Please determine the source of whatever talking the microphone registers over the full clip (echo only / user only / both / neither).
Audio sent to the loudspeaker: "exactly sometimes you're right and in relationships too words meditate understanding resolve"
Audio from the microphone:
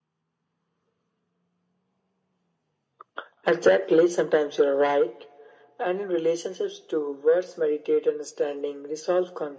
echo only